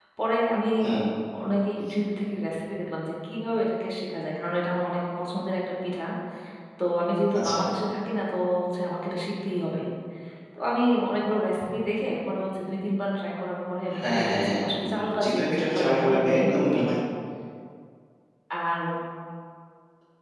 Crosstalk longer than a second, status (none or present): present